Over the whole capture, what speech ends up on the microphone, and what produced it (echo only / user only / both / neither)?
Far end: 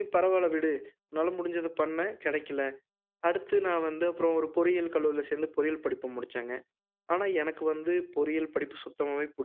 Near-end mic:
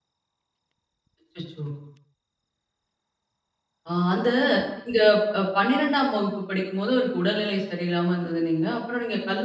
user only